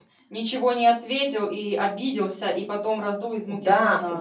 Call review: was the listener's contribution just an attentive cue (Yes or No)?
No